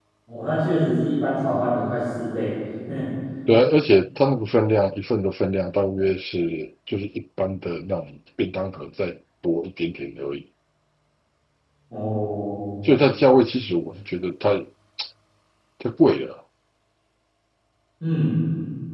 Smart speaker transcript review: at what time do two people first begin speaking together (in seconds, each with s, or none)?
none